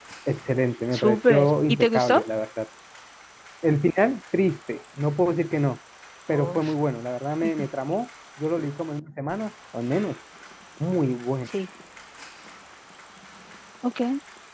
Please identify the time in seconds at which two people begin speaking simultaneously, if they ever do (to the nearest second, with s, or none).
1 s